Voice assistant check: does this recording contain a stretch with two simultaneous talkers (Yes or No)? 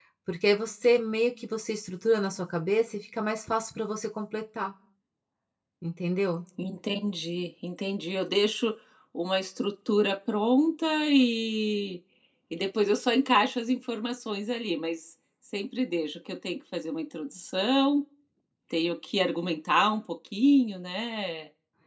No